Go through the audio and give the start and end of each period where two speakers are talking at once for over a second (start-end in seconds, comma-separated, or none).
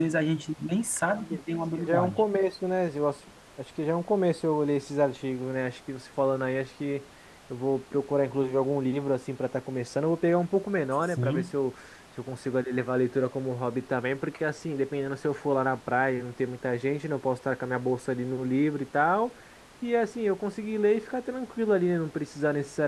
none